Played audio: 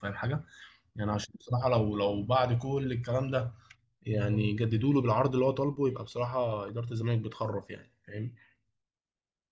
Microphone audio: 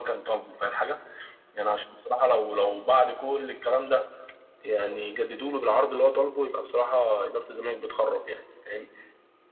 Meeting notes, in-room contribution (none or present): none